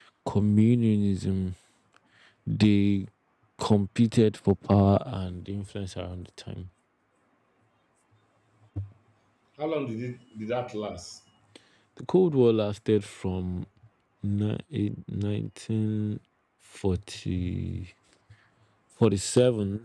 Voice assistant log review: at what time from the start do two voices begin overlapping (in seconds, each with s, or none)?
none